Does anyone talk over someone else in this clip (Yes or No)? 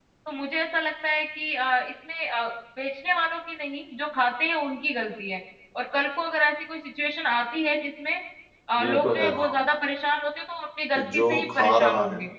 Yes